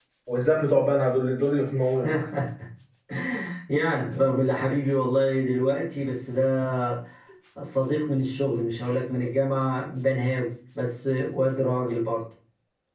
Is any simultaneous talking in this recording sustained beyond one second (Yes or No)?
No